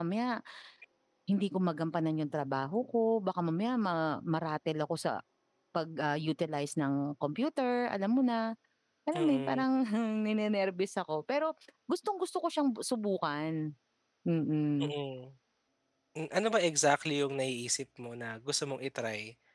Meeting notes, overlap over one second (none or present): none